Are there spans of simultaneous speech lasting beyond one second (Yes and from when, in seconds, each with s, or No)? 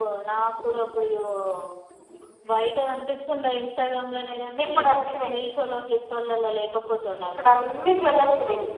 No